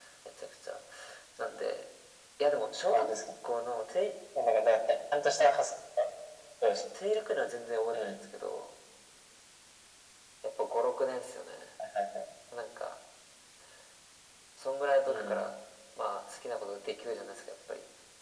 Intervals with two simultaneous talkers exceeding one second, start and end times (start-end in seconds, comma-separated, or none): none